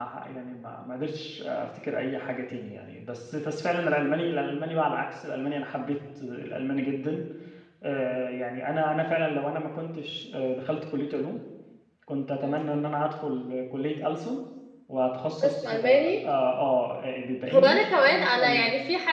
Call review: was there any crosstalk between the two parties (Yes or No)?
Yes